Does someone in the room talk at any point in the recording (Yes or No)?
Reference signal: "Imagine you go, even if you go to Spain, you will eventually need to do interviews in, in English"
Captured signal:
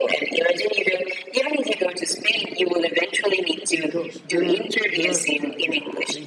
Yes